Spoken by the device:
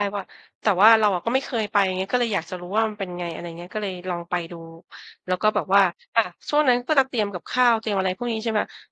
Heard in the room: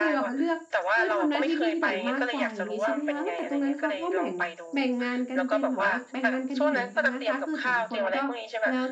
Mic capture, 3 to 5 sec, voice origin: both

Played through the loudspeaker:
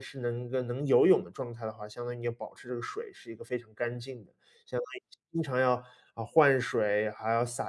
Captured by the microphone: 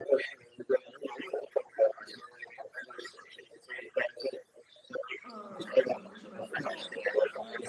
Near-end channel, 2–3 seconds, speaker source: echo only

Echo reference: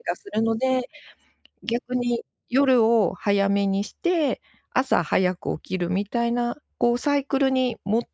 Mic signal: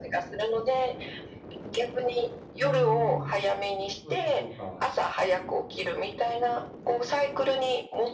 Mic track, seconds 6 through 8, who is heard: echo only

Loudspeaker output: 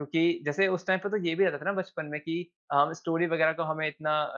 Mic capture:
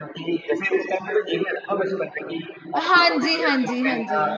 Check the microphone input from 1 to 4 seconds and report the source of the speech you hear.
both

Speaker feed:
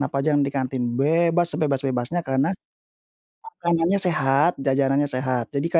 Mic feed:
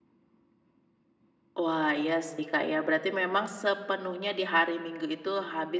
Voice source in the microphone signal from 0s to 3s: user only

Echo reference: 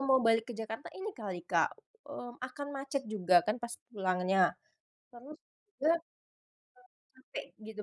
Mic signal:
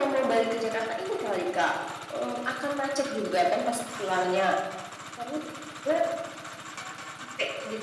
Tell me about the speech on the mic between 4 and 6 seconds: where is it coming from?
echo only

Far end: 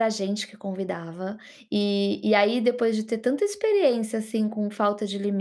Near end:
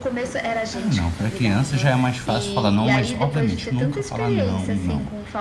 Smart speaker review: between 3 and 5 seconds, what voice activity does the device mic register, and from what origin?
both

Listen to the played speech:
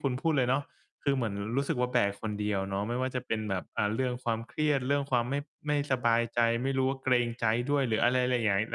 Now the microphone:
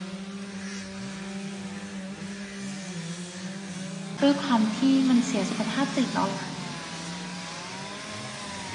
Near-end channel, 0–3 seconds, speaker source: neither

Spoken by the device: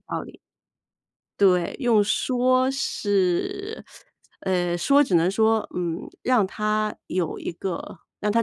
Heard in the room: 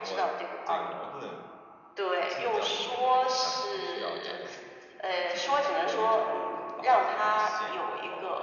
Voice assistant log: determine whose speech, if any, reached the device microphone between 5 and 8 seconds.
both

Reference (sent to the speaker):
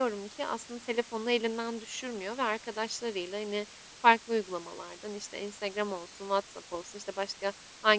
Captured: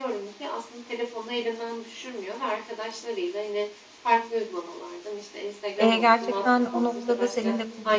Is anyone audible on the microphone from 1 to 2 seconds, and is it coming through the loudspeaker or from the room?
echo only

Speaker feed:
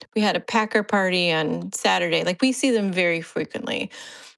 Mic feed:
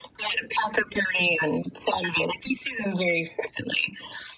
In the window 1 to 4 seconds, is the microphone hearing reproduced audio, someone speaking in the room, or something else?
echo only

